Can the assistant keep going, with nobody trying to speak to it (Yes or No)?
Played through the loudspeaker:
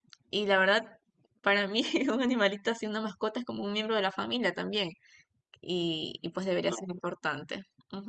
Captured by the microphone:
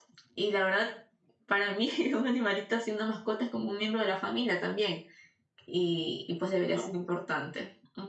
Yes